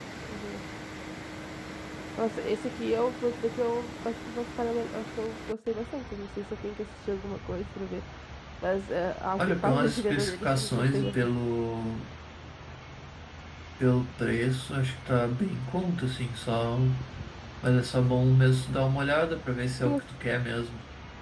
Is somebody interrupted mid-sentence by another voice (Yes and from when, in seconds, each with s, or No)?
Yes, from 9.4 s